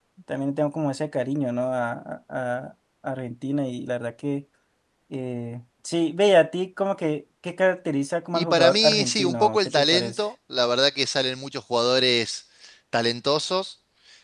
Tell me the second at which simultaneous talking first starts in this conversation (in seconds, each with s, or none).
8.3 s